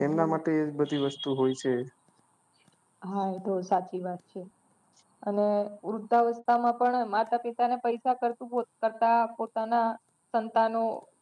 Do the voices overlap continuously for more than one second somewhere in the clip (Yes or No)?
No